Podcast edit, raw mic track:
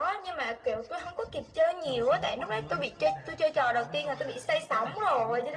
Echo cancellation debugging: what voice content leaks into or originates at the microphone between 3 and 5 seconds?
both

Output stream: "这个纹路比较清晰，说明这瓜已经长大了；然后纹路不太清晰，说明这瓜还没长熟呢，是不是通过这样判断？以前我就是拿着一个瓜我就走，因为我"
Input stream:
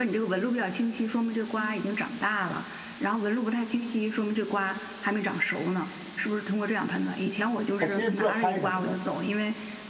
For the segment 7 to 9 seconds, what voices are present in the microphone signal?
both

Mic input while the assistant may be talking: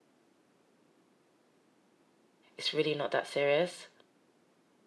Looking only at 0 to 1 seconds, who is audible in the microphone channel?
neither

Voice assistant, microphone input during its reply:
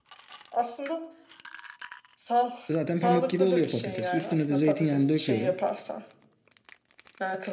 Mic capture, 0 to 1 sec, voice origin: echo only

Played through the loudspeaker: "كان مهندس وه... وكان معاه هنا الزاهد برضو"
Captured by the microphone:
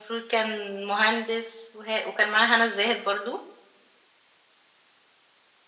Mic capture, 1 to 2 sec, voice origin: echo only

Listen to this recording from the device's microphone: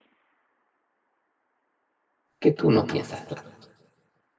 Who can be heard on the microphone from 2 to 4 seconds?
user only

